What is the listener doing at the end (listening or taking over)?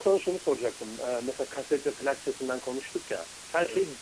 listening